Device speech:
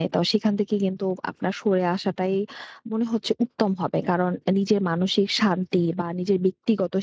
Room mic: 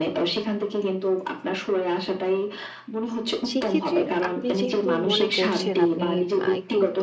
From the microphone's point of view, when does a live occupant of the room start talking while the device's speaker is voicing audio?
3.5 s

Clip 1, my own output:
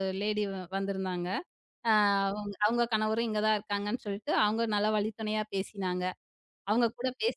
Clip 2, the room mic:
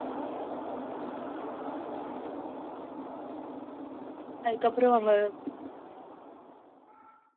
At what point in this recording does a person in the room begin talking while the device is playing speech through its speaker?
4.5 s

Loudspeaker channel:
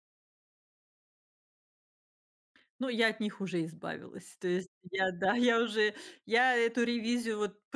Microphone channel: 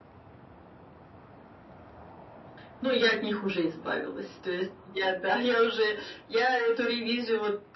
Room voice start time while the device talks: none

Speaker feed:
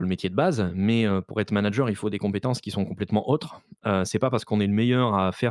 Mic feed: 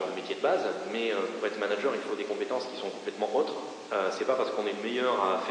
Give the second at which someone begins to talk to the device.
none

